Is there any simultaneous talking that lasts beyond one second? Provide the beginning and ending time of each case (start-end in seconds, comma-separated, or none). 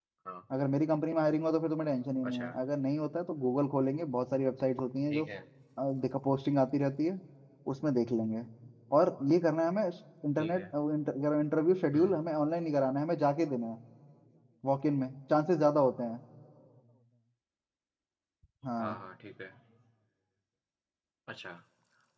none